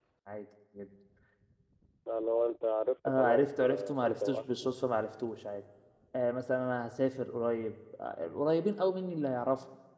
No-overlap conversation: No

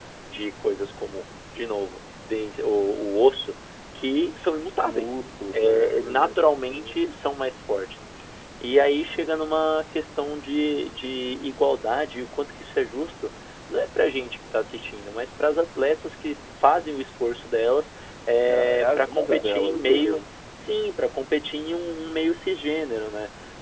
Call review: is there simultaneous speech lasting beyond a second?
Yes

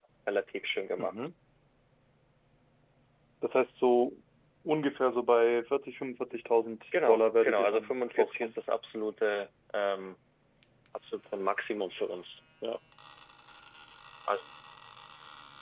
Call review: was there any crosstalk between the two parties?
Yes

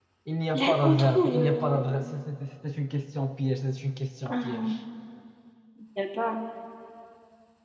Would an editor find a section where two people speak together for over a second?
Yes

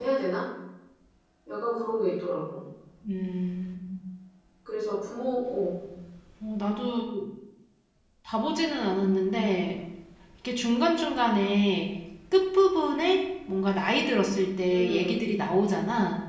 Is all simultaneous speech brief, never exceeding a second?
Yes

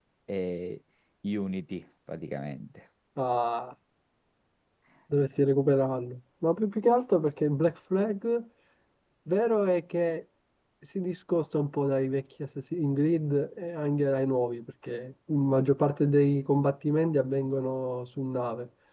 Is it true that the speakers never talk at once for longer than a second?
Yes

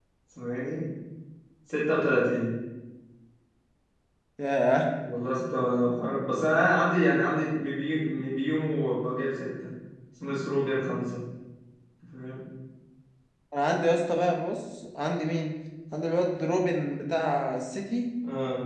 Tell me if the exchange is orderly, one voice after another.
Yes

